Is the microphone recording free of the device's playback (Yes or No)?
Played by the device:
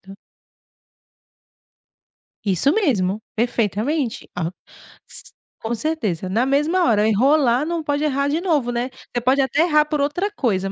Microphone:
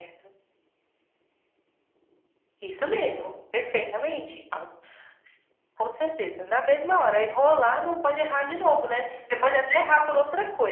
No